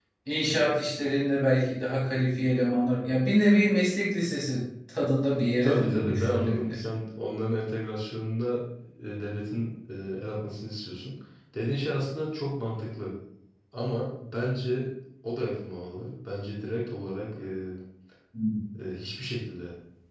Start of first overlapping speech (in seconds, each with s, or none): 5.6 s